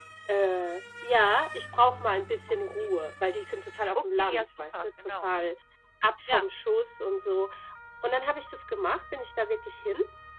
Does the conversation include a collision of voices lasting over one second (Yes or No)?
Yes